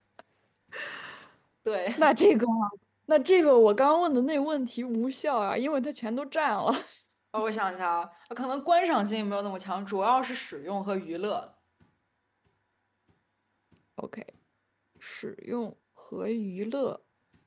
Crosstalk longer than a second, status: none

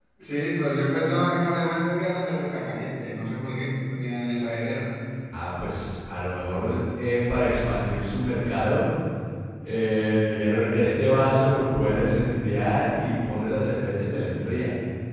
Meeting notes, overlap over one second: none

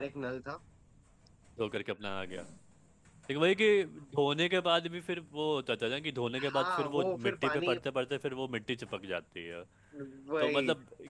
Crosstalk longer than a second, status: present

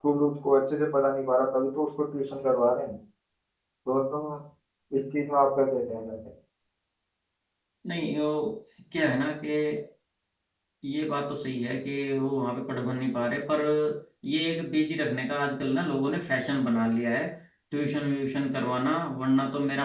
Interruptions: none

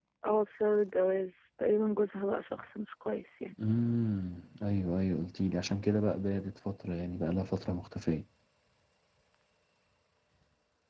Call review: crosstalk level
none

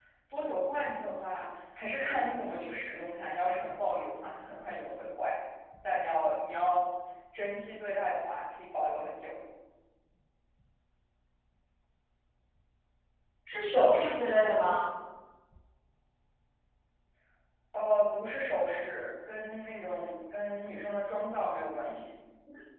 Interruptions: none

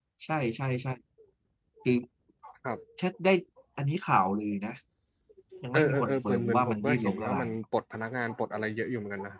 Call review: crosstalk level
present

